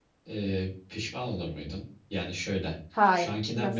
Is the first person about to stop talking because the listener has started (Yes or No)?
No